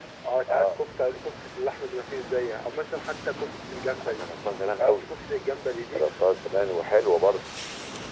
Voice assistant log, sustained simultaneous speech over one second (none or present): none